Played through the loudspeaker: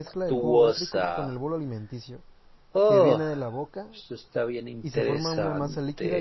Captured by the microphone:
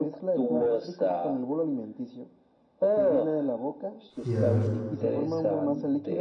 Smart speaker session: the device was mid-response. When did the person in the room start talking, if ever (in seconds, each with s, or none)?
4.2 s